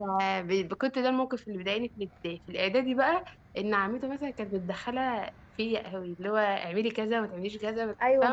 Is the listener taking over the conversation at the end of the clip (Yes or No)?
Yes